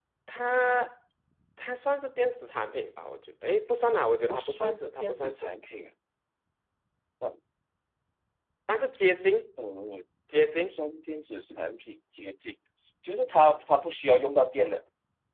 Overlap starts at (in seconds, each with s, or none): 4.3 s